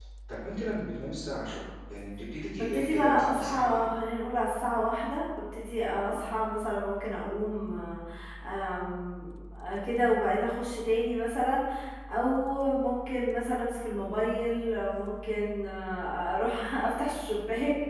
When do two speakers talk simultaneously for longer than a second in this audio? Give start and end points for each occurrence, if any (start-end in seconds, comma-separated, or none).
2.6-3.9